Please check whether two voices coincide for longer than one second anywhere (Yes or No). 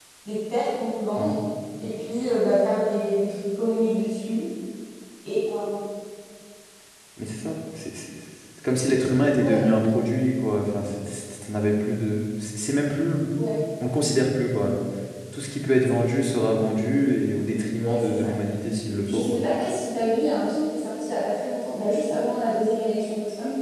No